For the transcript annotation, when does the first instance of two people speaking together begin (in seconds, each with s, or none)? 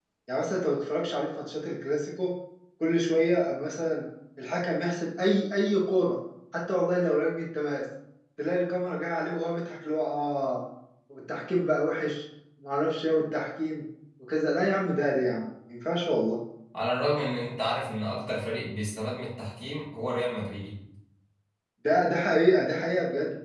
none